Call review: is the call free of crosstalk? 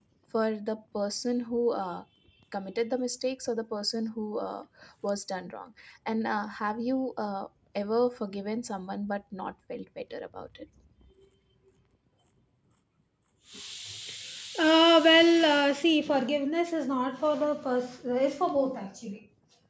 Yes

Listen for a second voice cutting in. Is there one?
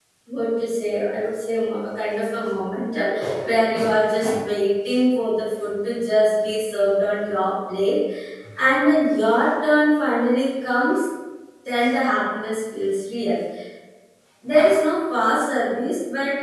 No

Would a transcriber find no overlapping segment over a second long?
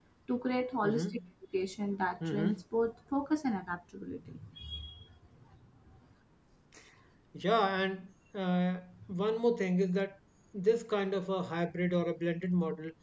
Yes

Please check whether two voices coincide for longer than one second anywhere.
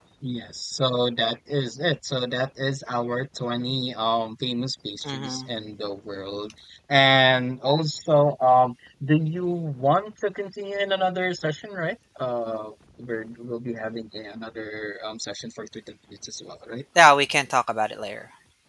No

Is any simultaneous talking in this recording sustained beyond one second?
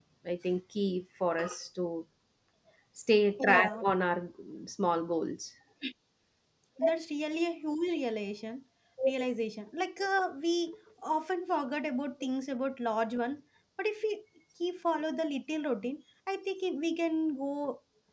No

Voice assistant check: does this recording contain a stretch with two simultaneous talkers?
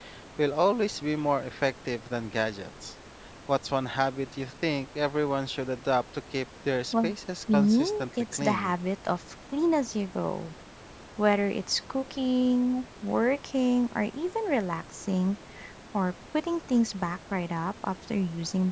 Yes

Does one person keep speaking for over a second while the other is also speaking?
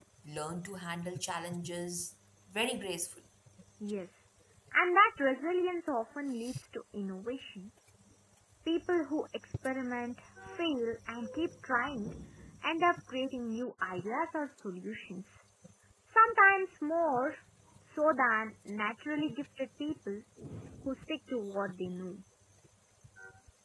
No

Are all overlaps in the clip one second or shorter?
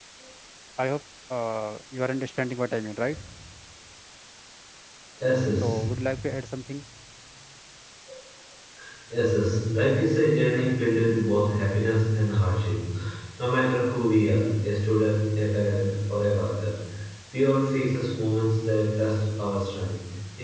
Yes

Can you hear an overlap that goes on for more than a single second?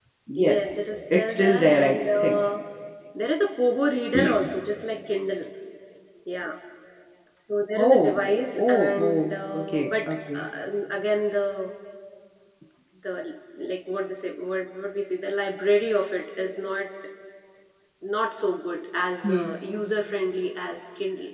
Yes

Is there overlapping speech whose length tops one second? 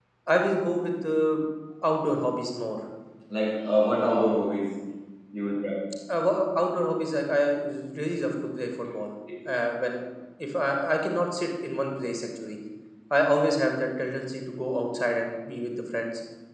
No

